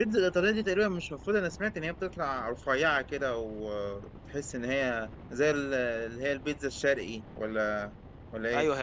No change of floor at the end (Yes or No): No